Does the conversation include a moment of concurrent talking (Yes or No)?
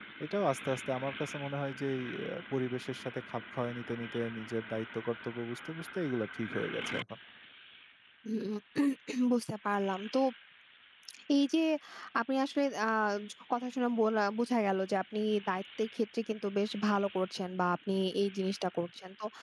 No